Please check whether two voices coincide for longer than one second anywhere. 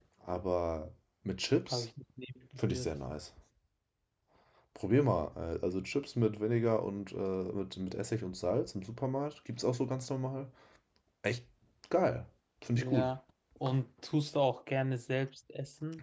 No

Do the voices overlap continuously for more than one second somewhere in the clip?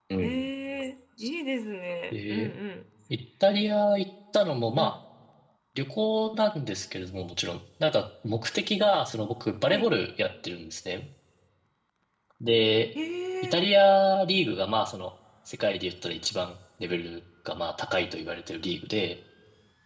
No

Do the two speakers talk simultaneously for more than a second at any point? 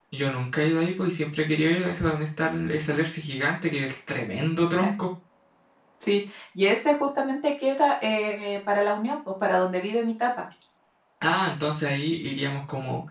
No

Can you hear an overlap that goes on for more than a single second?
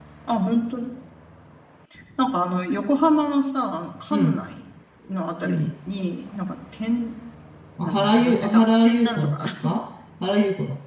Yes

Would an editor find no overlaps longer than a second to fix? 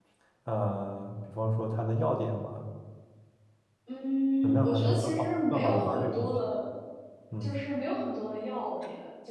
No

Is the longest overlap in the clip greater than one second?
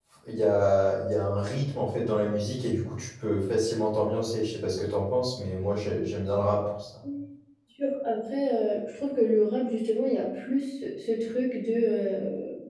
No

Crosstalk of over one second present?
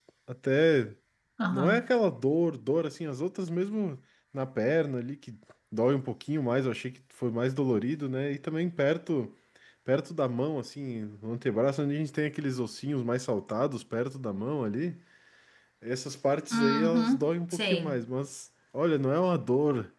Yes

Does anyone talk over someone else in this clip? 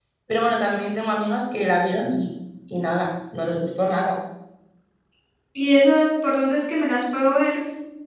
No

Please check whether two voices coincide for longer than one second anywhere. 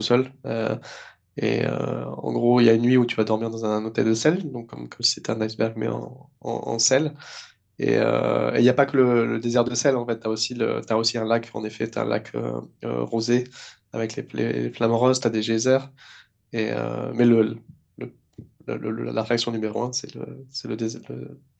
No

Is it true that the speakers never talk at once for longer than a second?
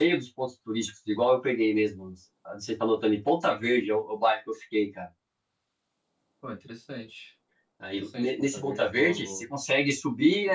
No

